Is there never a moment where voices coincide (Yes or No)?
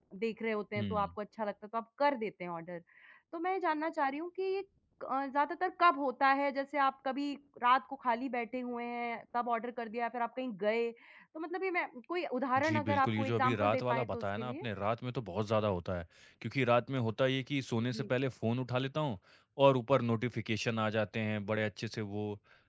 No